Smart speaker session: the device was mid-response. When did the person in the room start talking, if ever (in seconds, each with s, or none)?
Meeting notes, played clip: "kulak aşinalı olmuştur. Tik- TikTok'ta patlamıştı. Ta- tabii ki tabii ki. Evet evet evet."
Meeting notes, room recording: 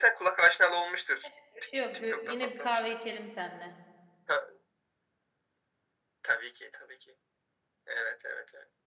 1.2 s